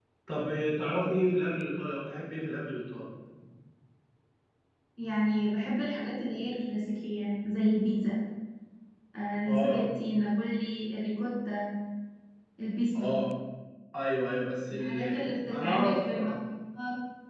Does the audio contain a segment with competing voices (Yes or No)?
Yes